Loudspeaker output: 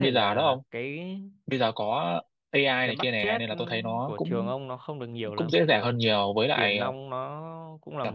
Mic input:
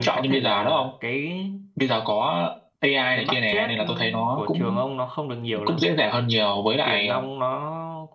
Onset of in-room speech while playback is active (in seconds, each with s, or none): none